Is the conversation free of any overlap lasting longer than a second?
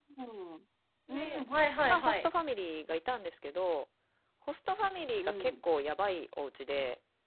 Yes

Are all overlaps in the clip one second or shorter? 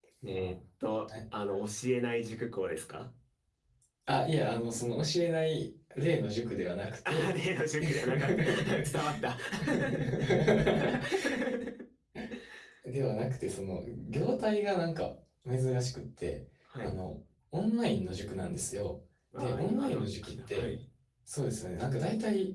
No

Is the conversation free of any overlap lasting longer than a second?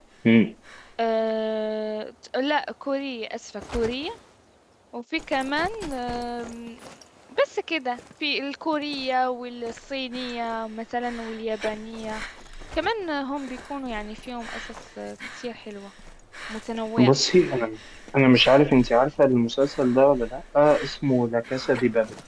Yes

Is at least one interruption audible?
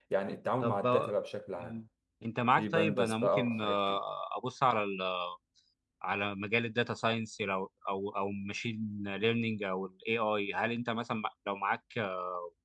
Yes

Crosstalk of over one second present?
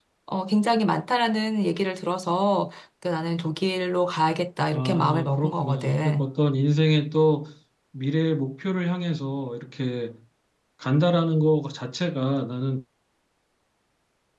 Yes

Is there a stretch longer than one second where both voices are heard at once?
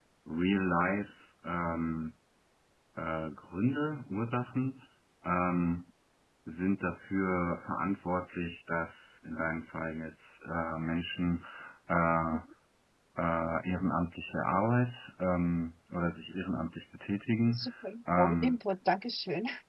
No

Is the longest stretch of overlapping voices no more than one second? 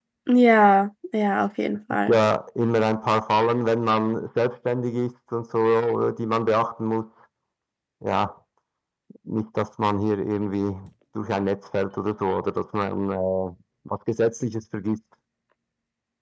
Yes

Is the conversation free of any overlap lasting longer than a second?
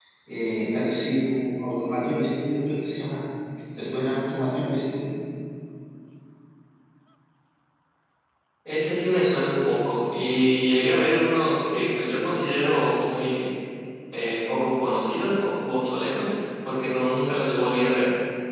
Yes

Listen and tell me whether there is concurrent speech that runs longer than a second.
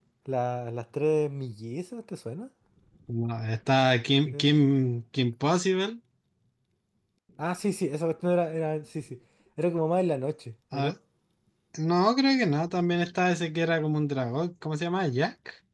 No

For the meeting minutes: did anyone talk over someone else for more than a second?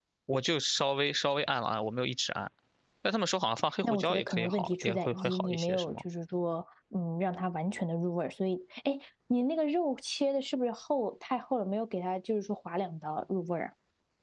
Yes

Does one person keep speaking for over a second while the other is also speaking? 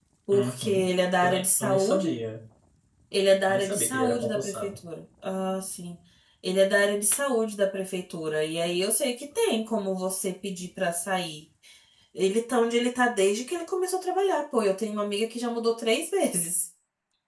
Yes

